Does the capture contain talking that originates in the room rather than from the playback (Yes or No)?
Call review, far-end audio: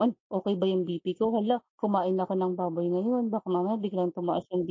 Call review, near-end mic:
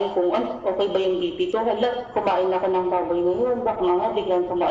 No